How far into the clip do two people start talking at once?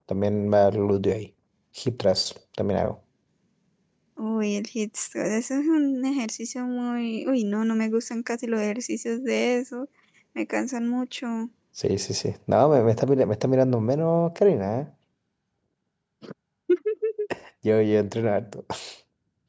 none

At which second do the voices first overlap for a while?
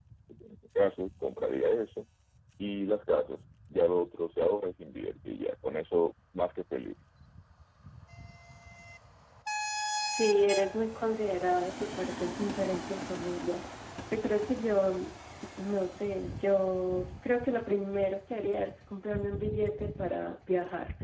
none

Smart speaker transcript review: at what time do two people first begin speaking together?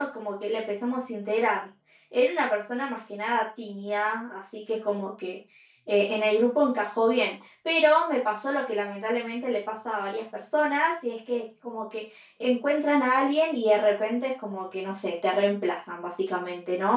none

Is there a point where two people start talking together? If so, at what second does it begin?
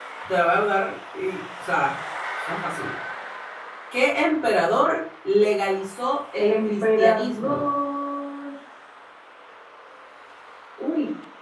6.3 s

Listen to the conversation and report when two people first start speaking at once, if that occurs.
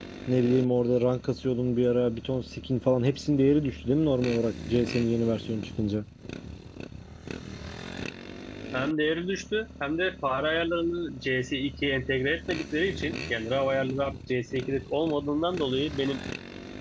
none

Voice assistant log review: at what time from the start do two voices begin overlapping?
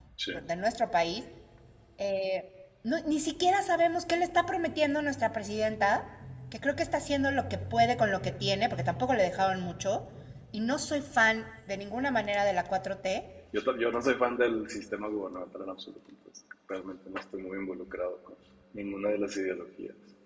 none

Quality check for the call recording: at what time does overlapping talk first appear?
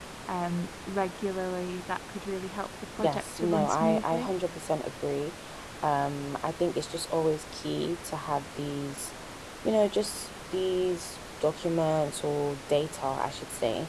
3.0 s

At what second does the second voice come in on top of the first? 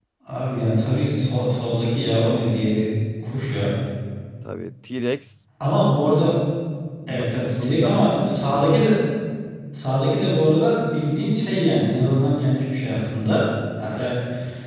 7.1 s

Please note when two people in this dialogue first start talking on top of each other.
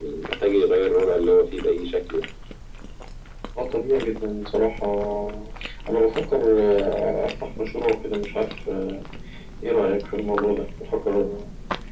none

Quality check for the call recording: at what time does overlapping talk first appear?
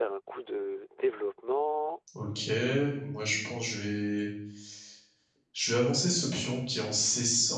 none

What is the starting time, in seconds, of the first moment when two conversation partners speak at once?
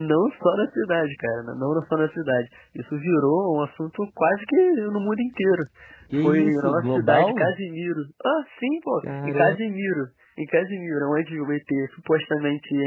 6.1 s

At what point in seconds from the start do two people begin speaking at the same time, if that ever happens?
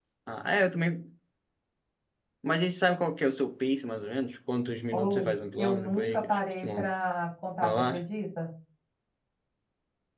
4.9 s

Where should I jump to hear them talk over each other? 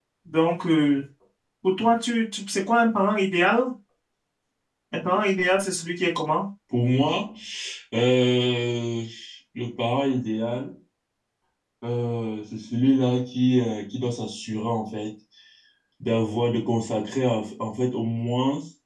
none

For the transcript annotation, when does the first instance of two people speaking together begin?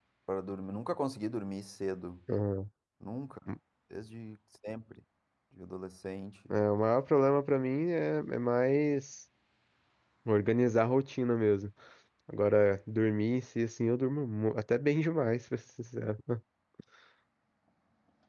none

